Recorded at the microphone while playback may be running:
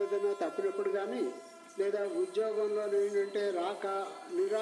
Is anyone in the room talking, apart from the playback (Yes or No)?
No